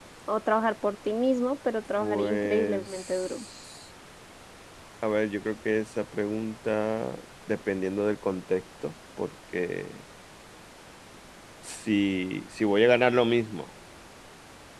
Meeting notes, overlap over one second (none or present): present